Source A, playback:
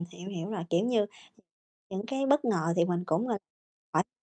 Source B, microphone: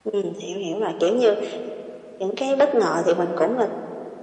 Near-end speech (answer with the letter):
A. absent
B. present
A